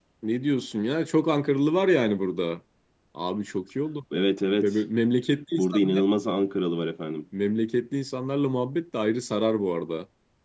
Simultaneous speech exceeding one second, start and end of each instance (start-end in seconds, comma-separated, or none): none